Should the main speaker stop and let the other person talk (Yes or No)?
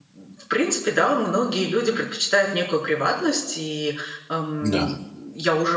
No